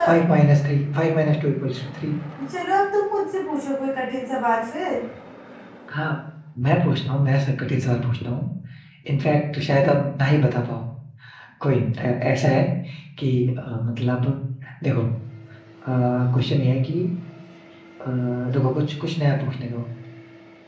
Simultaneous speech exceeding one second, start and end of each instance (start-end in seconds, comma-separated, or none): none